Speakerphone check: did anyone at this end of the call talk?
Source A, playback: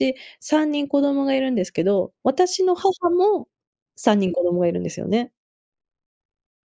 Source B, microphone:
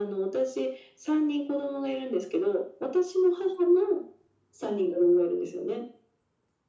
No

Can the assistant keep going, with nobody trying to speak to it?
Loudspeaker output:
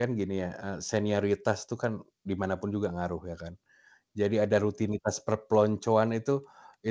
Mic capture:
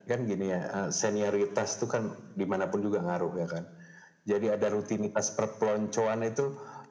Yes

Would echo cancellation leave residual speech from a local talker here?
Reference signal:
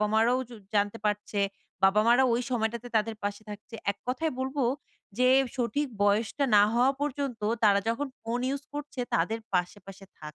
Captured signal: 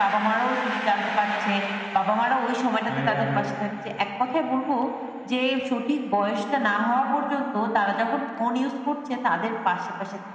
Yes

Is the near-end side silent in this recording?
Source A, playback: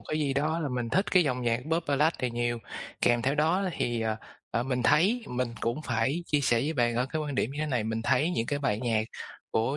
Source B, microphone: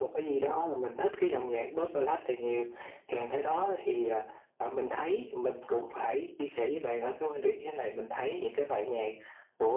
Yes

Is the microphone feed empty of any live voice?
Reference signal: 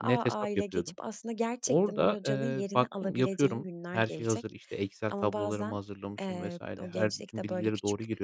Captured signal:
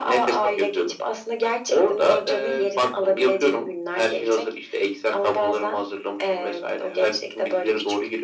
Yes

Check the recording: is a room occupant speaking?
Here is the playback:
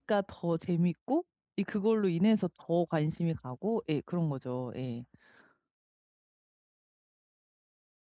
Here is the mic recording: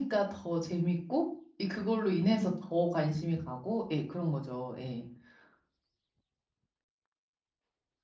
No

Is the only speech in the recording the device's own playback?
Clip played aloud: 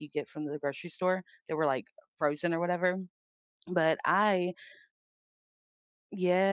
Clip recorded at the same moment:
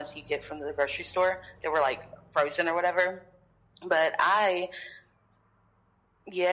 Yes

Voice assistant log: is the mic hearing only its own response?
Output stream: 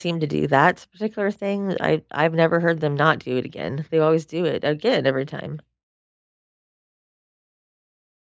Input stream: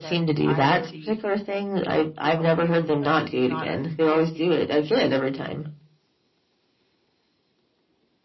No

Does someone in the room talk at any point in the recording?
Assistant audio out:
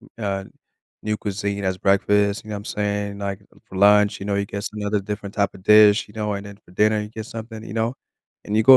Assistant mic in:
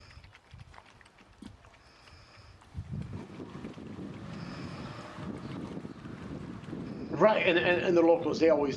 Yes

